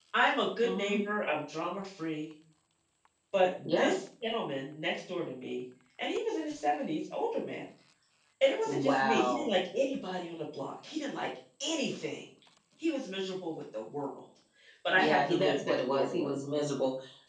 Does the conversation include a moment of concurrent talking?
Yes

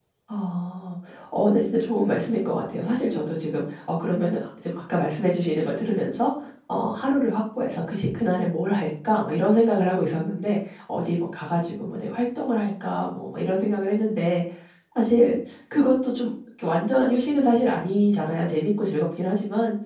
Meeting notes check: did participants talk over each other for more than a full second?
No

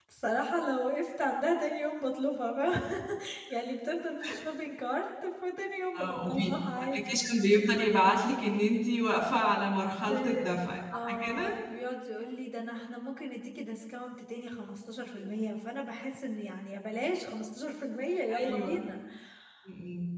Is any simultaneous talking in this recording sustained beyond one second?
Yes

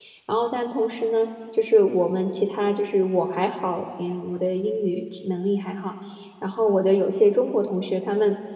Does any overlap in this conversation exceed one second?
No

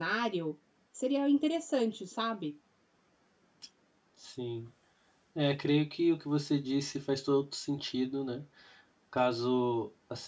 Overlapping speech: No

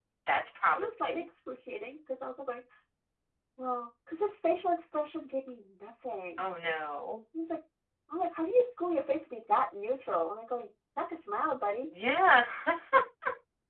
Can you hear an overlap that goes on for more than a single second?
No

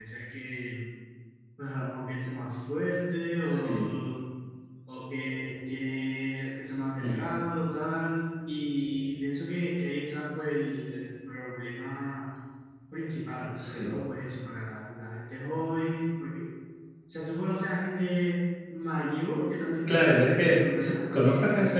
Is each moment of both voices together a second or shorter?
No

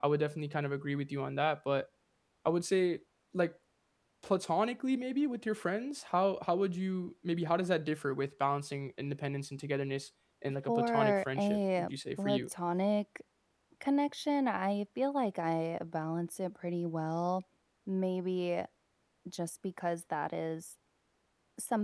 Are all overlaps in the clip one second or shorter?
No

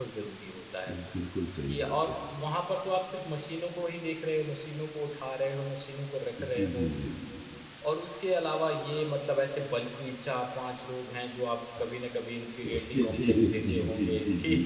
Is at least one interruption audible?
Yes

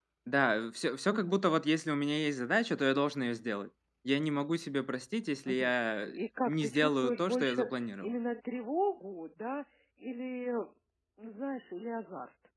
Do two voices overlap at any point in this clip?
Yes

